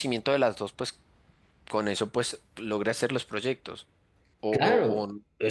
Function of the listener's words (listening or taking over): taking over